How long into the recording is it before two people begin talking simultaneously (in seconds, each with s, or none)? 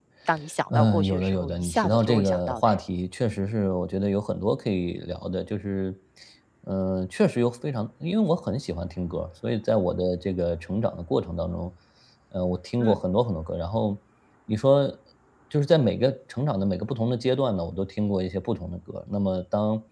0.7 s